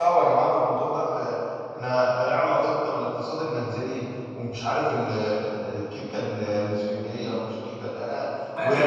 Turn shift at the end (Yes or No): No